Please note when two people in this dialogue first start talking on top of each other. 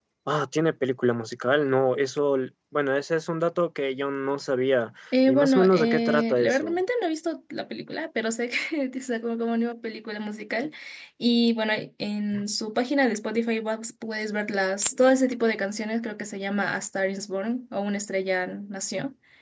5.1 s

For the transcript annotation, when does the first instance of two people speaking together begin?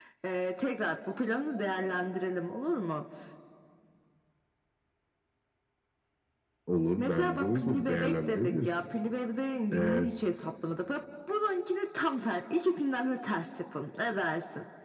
7.0 s

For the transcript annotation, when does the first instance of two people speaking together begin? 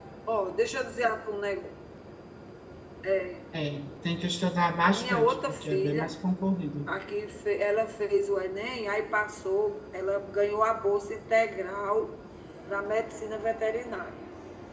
4.8 s

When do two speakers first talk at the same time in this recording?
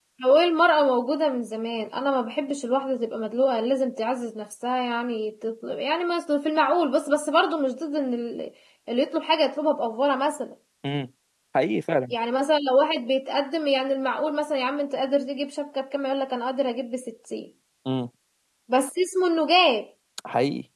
none

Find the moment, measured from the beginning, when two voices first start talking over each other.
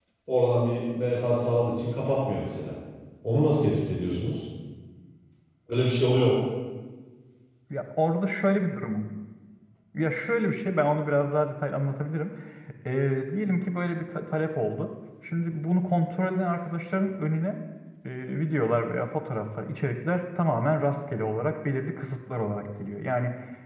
none

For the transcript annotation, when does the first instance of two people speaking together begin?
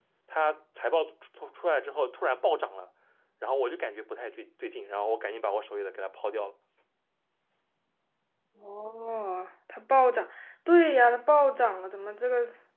none

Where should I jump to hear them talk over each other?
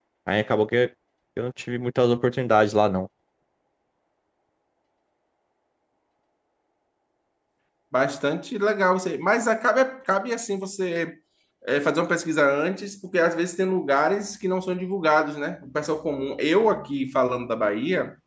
none

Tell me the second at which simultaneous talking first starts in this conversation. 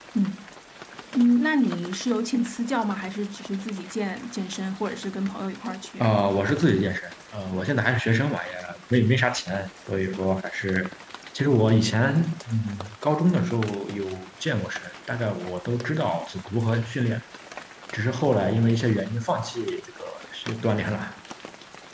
none

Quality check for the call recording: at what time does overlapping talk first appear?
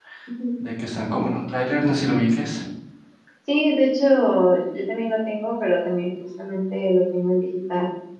none

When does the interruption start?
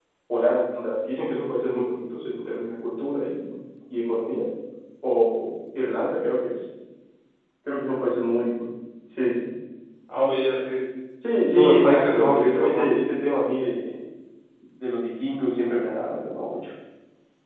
11.5 s

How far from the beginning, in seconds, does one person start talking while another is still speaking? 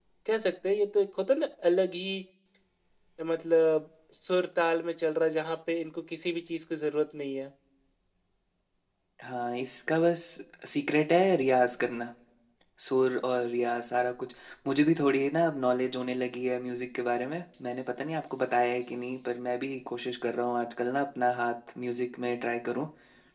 none

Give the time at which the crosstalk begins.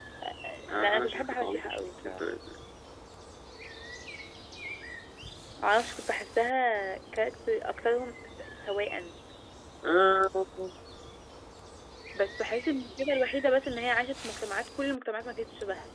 0.7 s

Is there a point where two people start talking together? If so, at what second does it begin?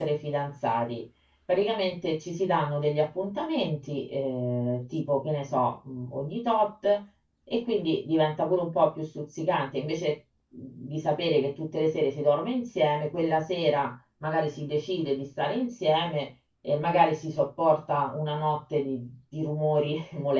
none

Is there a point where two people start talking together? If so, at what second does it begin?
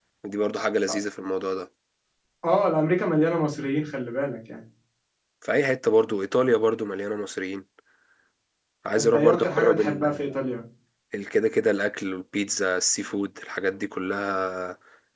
9.0 s

